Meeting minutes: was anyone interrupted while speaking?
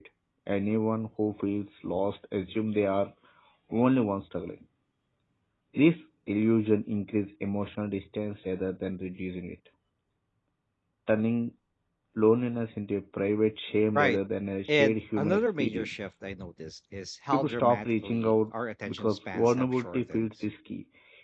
Yes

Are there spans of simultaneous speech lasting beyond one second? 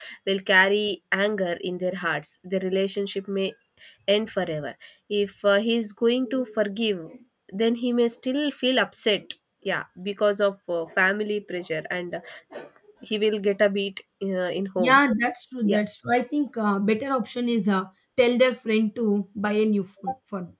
No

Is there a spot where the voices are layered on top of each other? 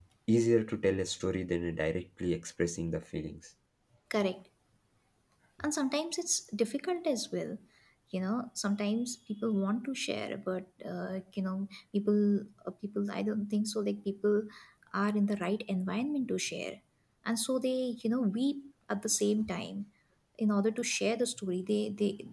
No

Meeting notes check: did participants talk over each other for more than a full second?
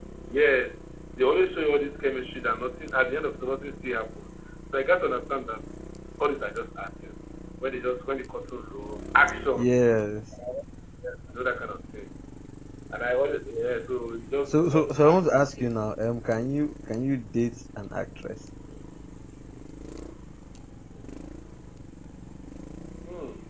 Yes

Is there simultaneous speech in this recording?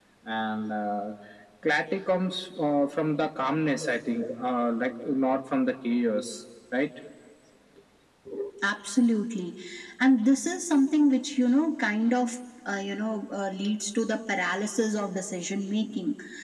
No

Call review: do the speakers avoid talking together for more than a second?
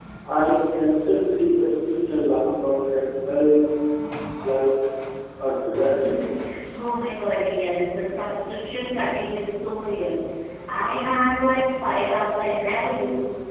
Yes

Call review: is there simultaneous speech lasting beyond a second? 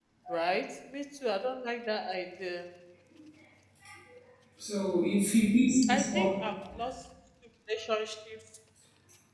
No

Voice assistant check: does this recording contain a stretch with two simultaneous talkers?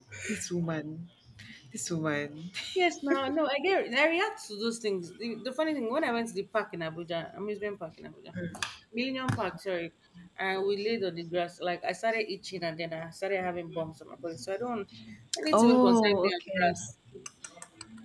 Yes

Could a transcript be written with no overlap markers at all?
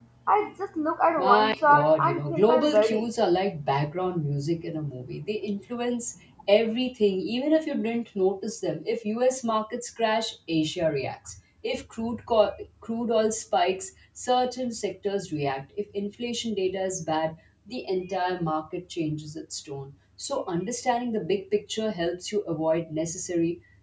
No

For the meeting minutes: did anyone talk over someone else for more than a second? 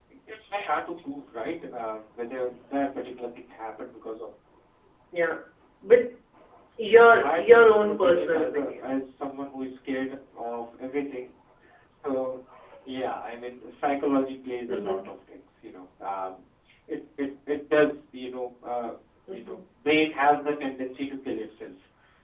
Yes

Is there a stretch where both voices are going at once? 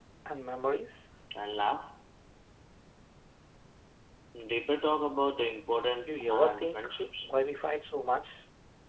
Yes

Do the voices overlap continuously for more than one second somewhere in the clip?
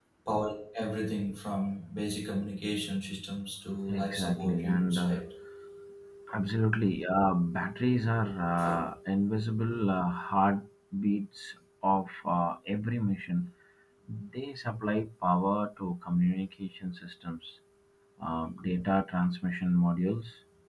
Yes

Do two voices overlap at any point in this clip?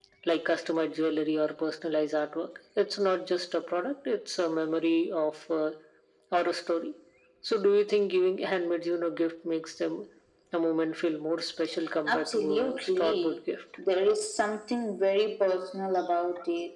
Yes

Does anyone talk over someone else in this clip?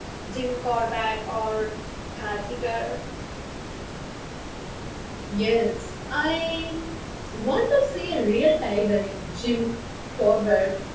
No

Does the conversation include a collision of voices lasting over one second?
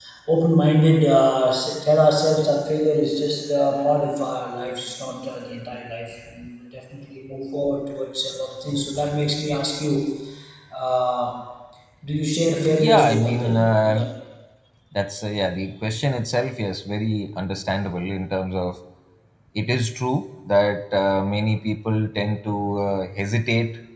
Yes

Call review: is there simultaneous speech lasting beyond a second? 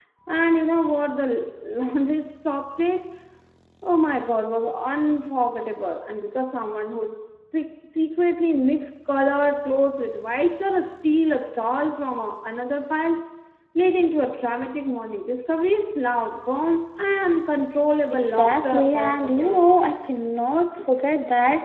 Yes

